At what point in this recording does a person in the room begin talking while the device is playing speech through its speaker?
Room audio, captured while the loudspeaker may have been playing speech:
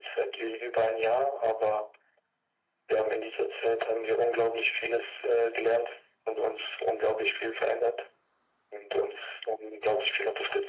none

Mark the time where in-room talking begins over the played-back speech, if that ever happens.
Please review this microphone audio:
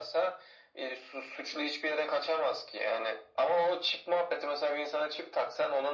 none

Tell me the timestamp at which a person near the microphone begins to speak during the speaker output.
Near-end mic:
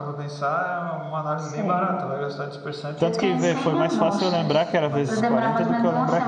3 s

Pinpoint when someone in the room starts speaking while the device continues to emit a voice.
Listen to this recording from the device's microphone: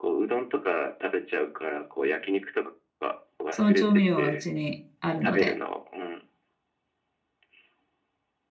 4 s

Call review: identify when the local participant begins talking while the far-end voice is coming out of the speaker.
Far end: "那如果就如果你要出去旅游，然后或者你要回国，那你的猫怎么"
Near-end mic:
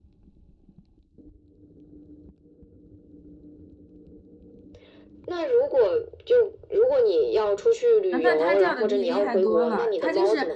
8 s

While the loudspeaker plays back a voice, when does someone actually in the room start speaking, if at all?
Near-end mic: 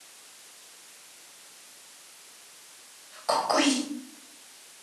3 s

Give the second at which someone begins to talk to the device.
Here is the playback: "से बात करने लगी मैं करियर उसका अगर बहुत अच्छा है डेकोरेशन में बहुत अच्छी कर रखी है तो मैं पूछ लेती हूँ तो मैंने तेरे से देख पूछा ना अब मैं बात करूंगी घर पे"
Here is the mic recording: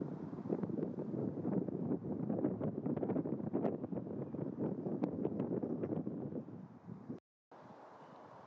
none

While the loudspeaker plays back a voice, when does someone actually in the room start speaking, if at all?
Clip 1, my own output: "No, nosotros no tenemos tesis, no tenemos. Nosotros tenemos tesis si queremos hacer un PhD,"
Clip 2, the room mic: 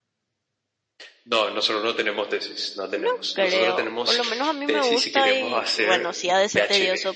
3 s

